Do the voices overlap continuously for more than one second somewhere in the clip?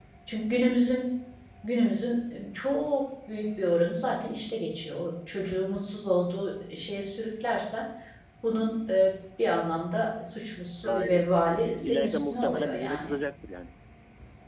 Yes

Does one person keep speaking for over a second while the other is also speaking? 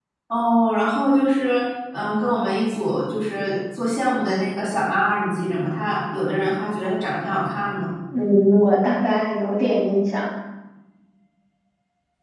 No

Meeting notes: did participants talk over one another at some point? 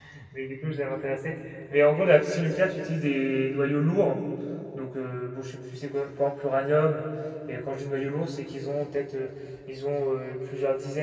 No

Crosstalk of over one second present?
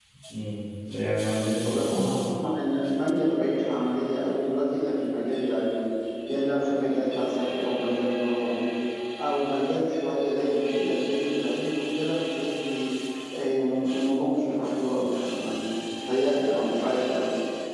No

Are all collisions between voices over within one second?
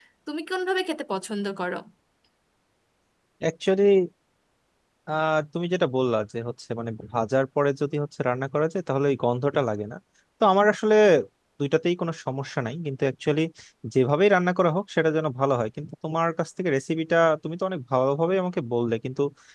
Yes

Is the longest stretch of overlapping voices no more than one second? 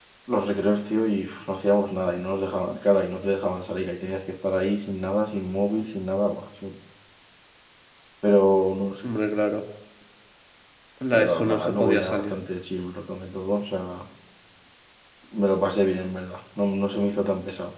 No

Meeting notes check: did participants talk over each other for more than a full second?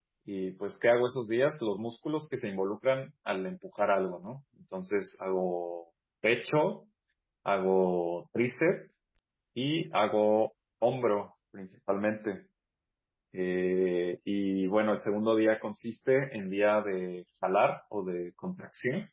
No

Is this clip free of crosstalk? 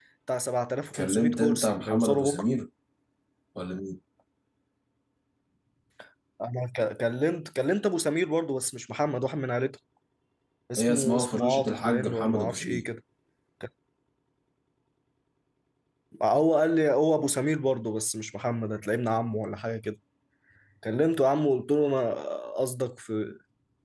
No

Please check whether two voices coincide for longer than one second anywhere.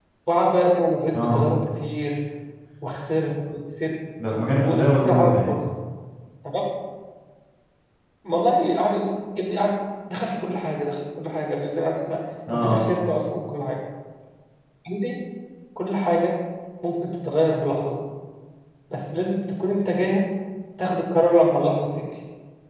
Yes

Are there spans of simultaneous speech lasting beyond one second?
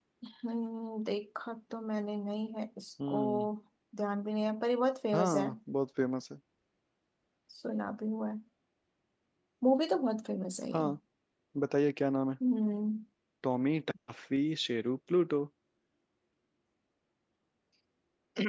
No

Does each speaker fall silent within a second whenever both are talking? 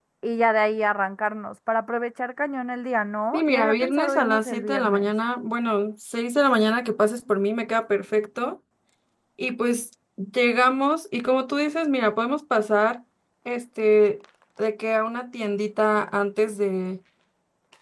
No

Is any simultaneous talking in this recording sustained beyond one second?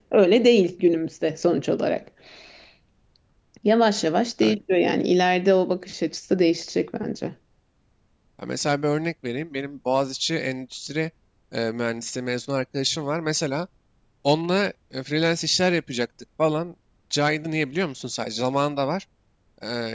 No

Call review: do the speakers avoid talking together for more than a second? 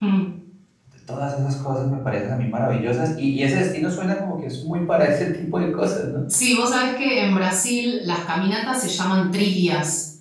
Yes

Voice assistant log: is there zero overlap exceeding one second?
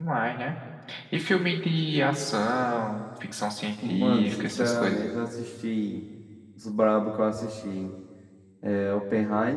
No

